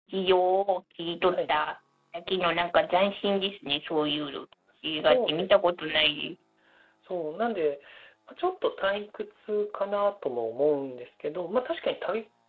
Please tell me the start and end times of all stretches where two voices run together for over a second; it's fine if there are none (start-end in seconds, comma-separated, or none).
4.8-6.3